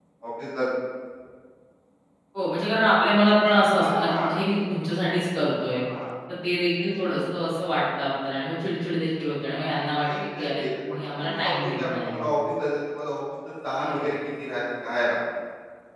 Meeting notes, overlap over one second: present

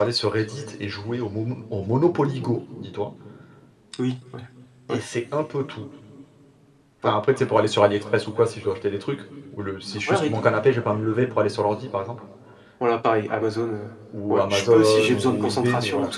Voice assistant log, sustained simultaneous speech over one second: present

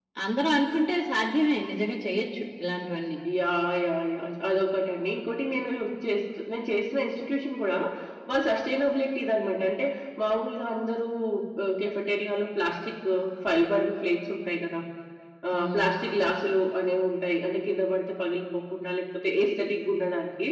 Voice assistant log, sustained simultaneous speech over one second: none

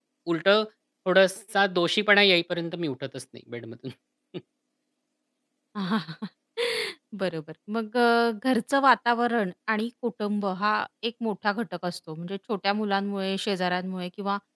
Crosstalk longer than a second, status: none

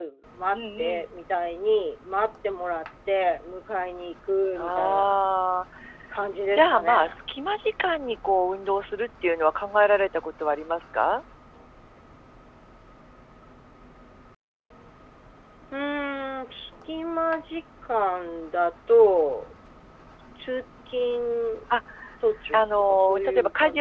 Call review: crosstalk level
present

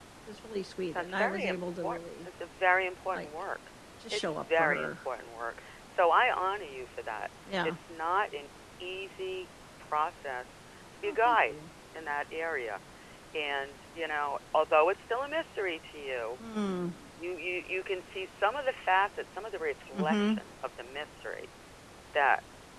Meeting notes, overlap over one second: present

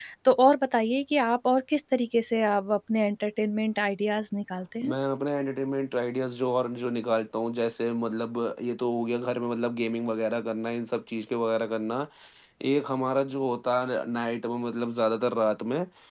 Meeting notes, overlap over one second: none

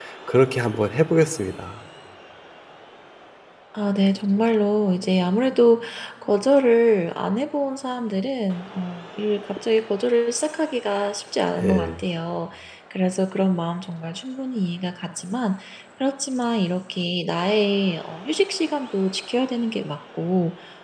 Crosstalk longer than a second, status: none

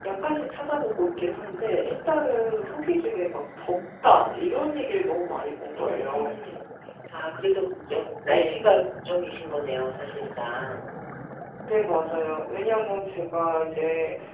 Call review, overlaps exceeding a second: none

